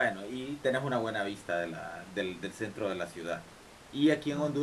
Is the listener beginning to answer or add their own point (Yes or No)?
No